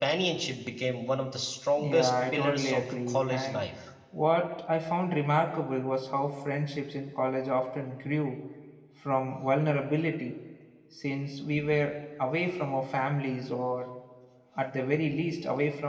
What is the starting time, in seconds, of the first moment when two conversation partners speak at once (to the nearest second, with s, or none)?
2 s